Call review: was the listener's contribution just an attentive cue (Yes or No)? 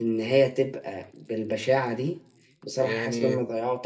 Yes